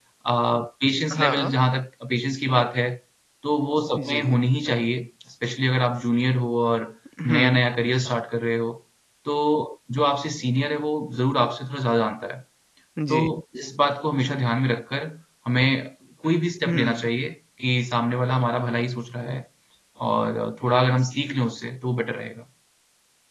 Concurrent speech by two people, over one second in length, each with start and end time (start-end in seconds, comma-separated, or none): none